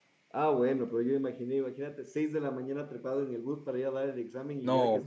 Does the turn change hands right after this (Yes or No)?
Yes